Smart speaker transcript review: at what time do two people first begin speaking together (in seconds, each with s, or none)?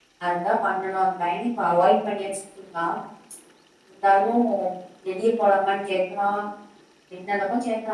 none